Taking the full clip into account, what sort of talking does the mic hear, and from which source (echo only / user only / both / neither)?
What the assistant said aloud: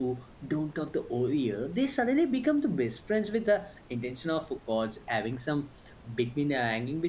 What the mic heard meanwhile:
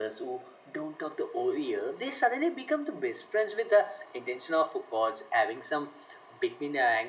echo only